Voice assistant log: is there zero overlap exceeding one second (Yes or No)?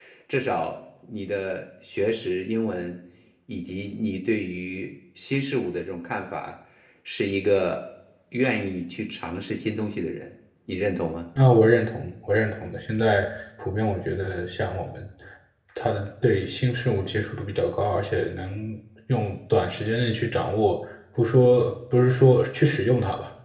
Yes